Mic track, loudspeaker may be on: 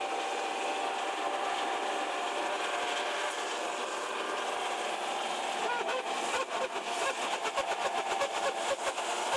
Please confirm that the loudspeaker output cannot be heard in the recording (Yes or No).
Yes